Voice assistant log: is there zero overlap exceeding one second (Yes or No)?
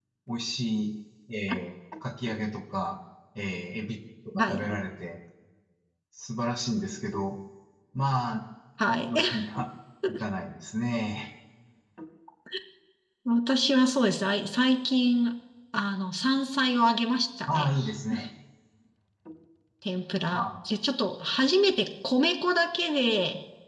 Yes